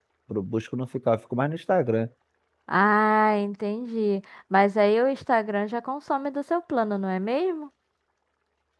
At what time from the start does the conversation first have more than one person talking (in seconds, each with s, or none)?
none